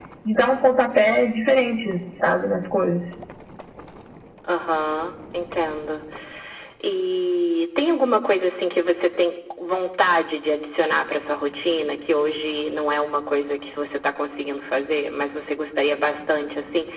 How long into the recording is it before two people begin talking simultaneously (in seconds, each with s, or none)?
none